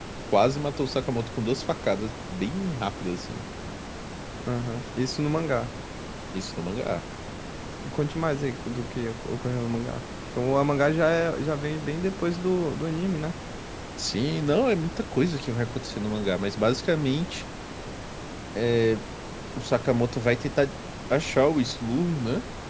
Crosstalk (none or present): none